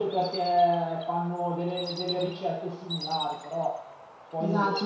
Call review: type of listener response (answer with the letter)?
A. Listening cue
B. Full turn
B